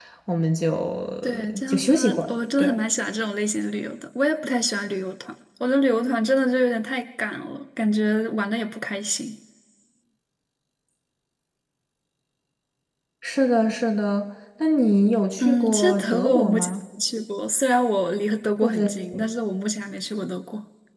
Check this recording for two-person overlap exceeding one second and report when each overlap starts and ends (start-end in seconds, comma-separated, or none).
1.2-2.8, 15.4-16.7